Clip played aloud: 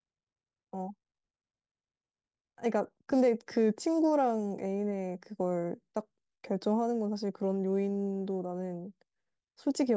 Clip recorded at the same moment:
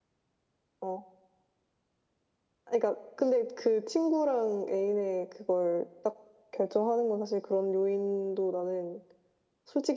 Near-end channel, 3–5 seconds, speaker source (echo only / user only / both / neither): echo only